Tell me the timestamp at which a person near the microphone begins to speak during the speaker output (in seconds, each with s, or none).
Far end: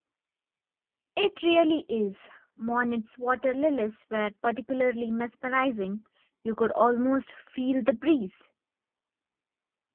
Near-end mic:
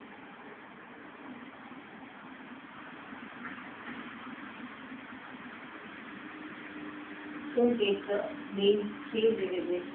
7.5 s